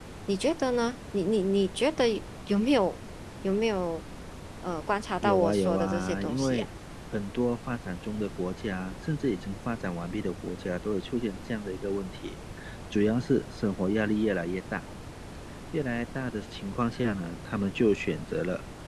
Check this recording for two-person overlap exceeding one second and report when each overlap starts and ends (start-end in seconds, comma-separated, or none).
5.2-6.6